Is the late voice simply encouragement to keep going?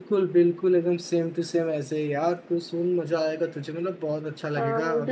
No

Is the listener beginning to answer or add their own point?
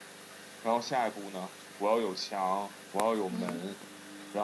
No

